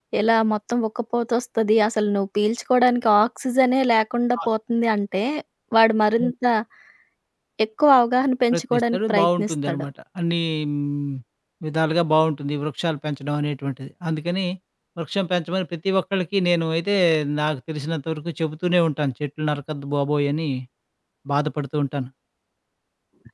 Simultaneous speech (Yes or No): Yes